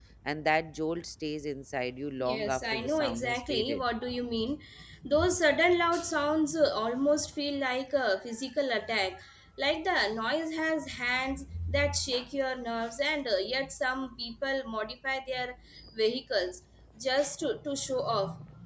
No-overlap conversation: No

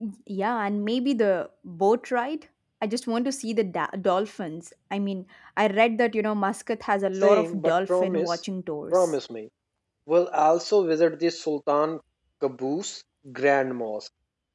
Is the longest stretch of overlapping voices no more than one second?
No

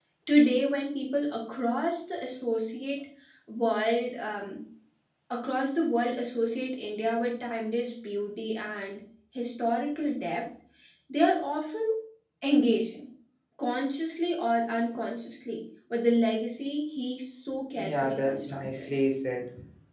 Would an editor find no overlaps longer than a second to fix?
No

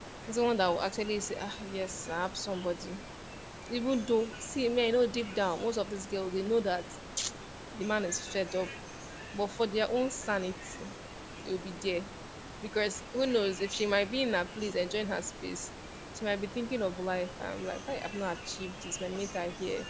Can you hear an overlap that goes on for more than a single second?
No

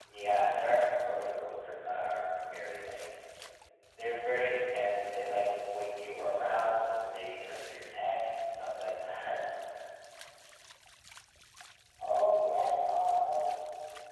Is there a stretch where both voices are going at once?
No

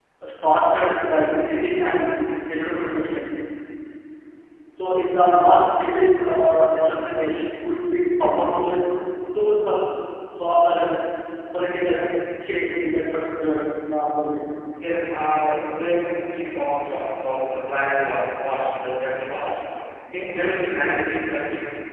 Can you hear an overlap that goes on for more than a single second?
No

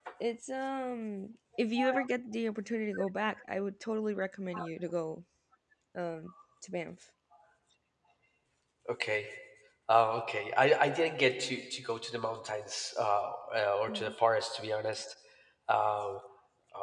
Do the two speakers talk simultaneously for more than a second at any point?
No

